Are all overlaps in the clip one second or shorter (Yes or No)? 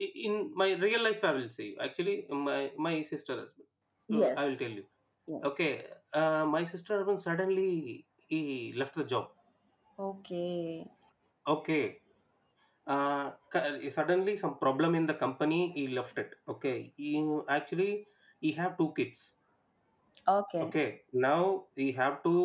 Yes